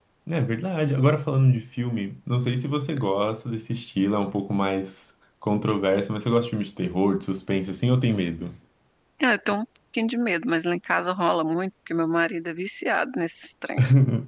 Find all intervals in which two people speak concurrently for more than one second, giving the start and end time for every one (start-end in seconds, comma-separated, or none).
none